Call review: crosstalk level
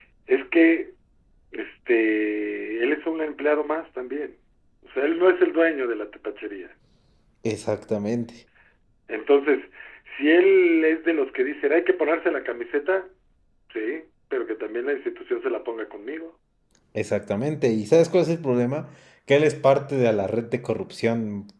none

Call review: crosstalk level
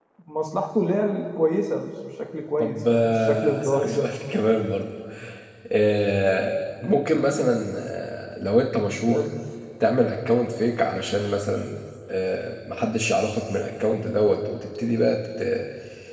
present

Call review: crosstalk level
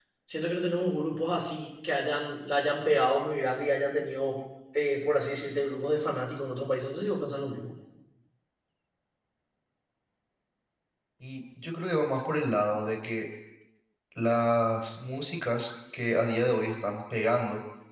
none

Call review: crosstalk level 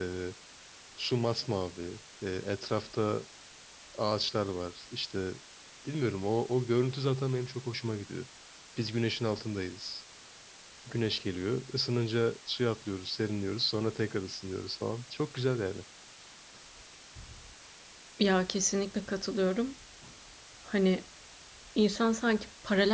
none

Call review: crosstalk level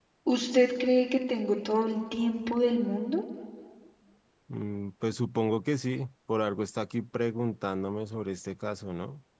none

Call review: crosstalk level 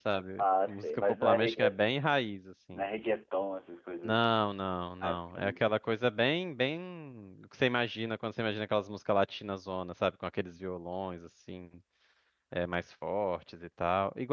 present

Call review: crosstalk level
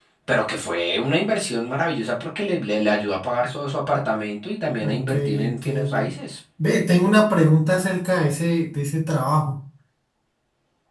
present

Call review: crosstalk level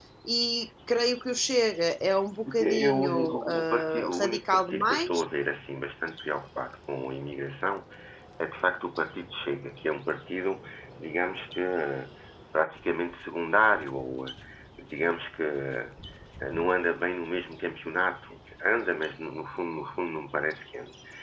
present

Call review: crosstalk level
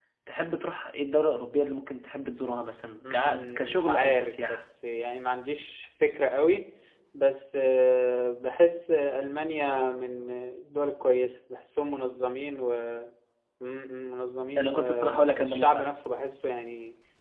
present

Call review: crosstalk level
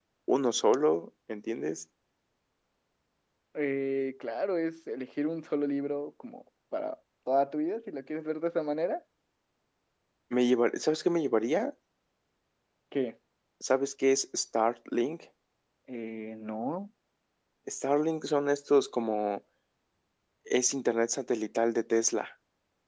none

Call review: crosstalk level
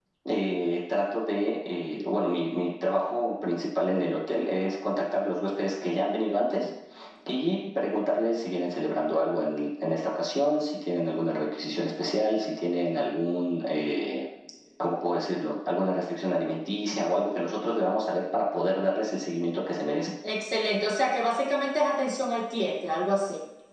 none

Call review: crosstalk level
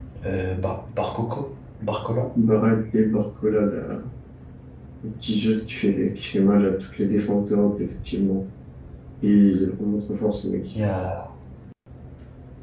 none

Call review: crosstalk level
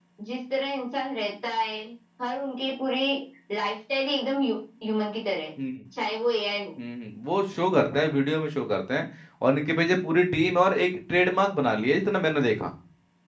none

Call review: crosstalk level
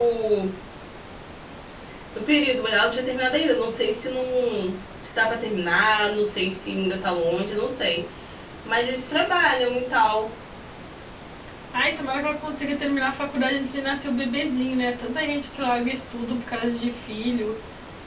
none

